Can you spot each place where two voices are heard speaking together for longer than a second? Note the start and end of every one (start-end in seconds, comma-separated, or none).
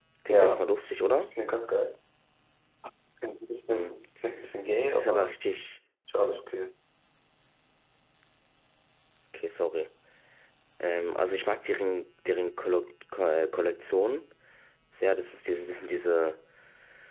none